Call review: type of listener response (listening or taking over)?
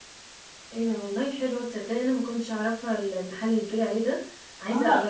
taking over